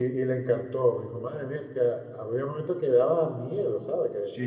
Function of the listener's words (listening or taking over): taking over